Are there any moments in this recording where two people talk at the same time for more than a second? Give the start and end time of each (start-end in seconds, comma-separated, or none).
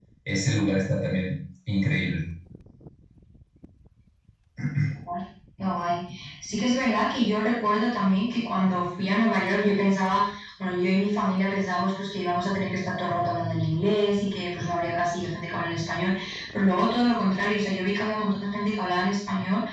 none